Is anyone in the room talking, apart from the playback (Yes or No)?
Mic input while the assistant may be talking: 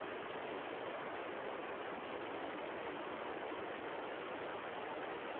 No